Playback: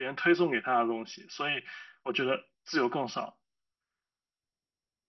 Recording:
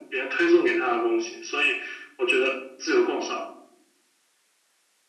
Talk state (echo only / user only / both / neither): echo only